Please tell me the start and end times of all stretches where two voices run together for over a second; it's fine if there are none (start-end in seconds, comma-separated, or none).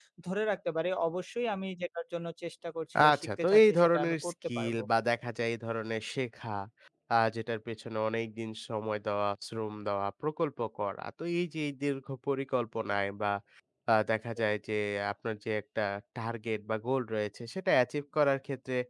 3.1-4.8